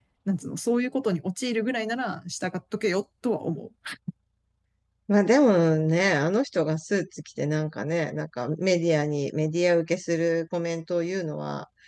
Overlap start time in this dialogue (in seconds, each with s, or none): none